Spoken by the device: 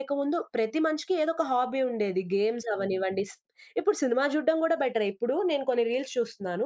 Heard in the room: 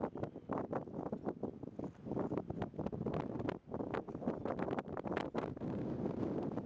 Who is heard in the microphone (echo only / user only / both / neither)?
neither